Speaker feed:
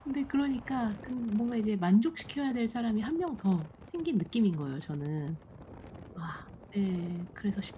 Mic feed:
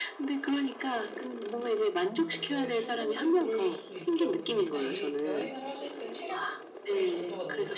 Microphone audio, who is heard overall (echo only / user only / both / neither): both